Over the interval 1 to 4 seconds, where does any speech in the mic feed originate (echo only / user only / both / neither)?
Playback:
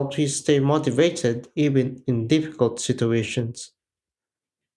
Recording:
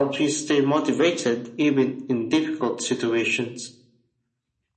echo only